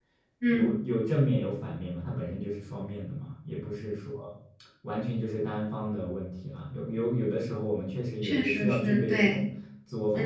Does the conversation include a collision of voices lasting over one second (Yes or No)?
Yes